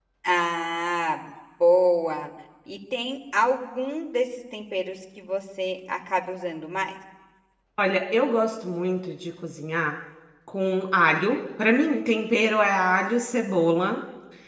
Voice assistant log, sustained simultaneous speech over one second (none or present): none